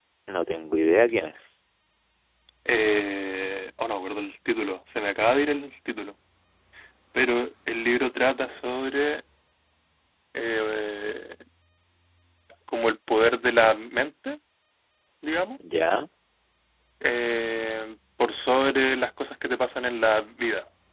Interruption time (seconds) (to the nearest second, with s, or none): none